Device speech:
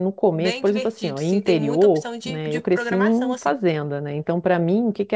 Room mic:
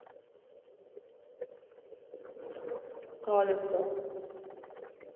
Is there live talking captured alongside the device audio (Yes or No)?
Yes